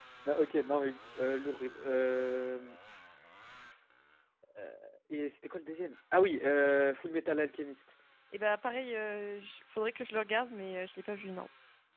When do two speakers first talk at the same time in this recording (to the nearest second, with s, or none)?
none